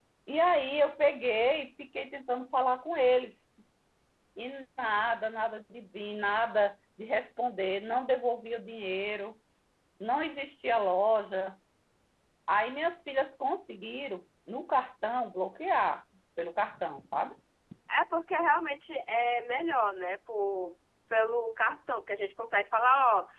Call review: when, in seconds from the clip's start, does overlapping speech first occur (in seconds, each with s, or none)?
none